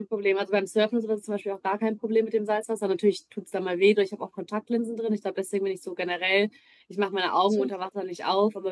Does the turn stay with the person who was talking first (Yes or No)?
Yes